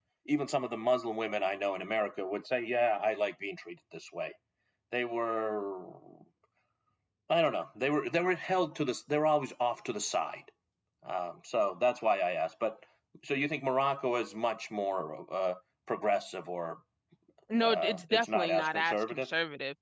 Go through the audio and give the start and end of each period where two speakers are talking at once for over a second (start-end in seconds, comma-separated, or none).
17.6-19.3